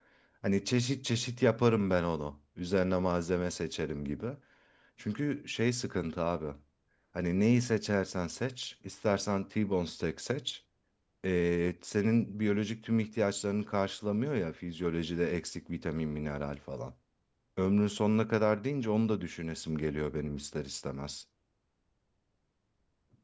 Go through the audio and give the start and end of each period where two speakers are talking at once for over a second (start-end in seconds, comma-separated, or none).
none